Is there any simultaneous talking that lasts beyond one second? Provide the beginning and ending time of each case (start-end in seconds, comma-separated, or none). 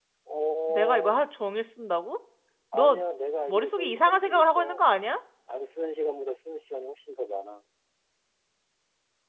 3.5-4.8